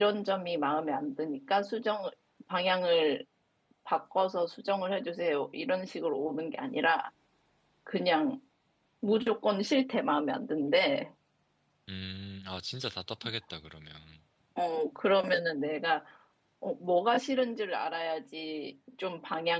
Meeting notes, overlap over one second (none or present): none